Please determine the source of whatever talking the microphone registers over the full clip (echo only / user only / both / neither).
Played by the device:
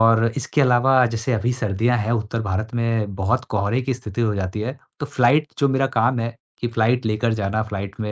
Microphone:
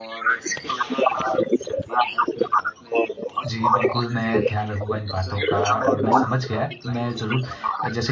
both